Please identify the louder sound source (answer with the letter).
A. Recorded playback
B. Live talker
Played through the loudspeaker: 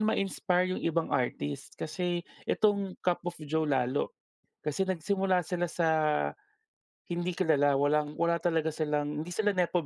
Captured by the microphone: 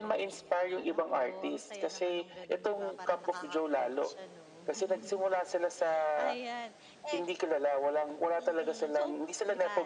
A